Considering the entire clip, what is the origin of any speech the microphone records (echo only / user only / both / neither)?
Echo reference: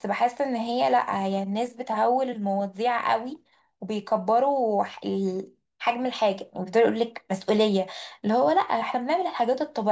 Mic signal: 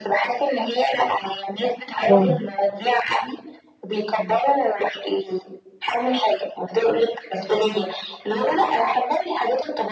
both